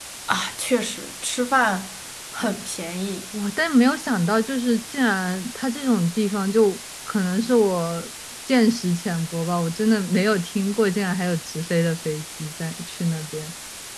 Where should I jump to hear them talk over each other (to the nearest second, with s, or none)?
none